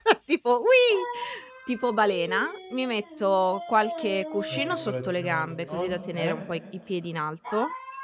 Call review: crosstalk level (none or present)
present